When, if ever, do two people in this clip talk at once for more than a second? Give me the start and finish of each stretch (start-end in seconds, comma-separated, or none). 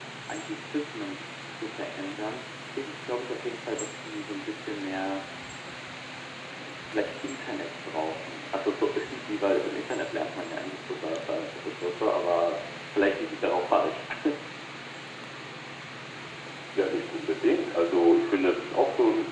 none